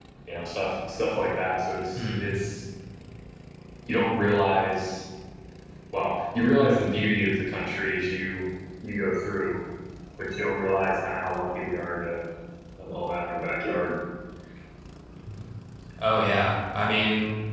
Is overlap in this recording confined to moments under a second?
Yes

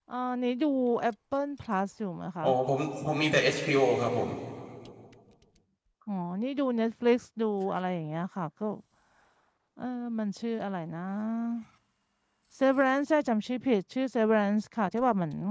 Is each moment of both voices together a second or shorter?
Yes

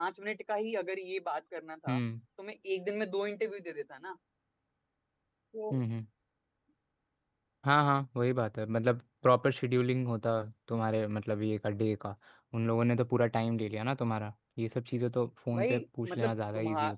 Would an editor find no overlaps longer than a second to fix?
No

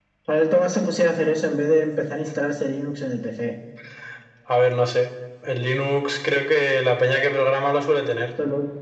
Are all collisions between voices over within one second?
Yes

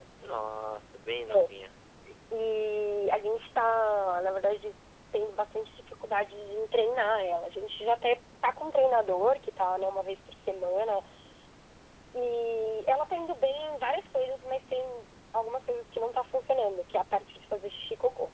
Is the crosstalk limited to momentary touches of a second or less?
Yes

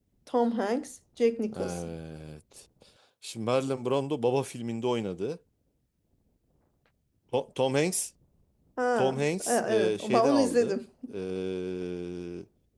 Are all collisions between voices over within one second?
No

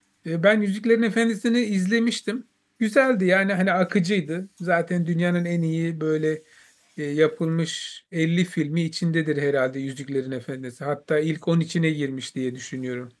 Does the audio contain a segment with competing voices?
No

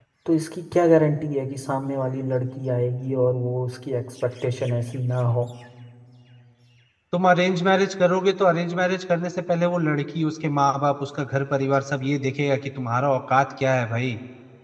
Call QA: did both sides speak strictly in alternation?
Yes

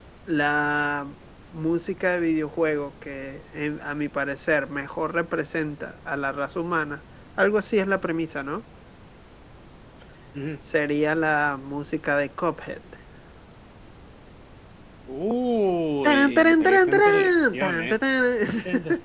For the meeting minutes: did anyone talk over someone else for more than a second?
Yes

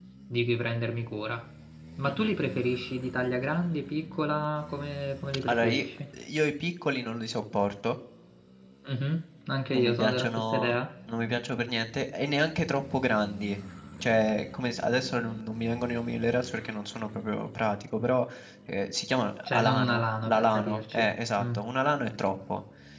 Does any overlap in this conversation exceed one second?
Yes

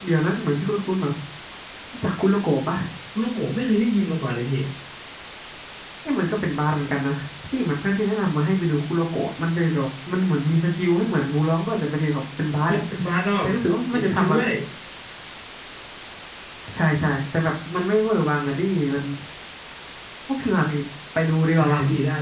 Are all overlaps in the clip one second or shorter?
Yes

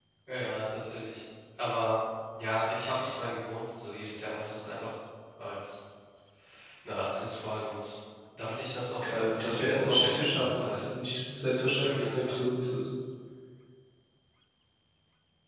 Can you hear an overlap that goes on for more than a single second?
Yes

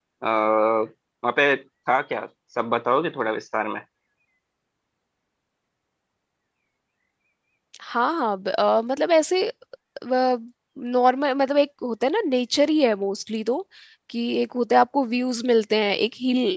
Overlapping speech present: No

